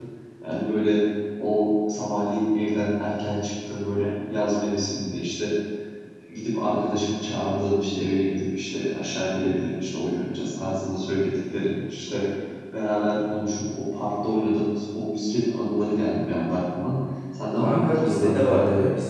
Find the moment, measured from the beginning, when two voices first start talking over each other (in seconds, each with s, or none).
17.6 s